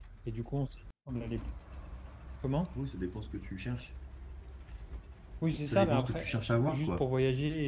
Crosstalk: present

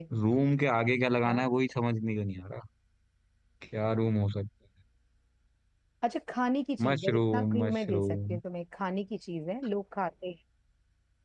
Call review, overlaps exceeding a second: present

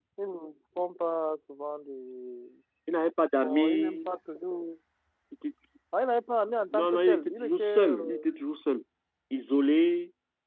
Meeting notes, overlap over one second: present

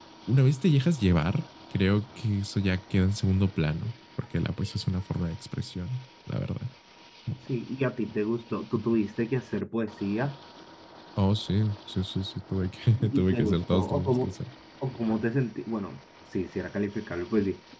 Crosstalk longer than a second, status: present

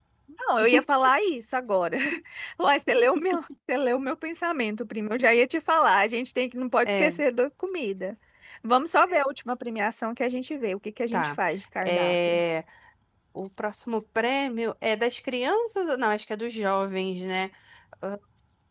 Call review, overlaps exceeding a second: none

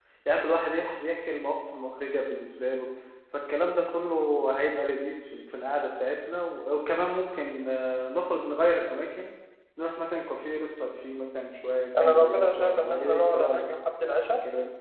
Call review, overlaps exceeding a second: present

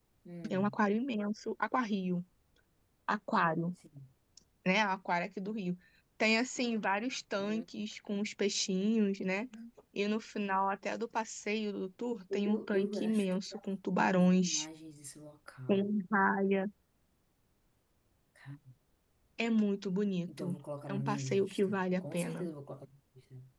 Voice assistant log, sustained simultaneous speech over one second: present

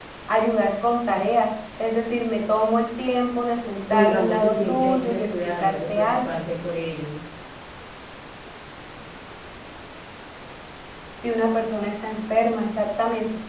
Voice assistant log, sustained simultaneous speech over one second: present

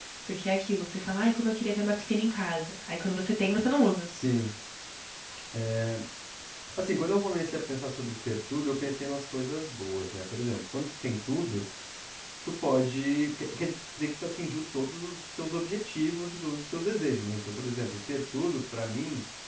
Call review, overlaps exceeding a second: none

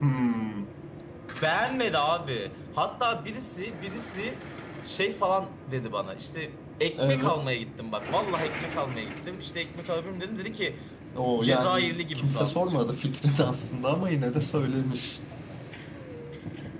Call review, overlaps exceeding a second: present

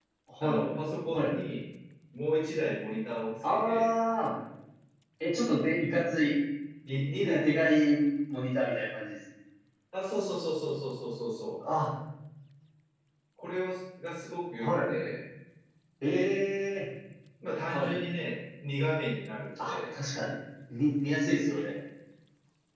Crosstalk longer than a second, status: none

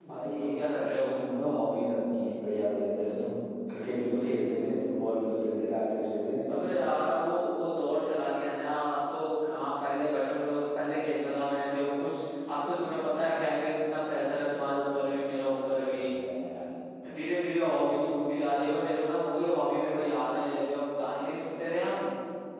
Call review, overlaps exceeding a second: none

